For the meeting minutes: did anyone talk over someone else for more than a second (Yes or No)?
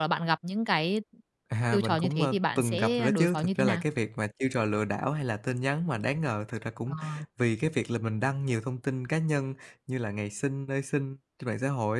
Yes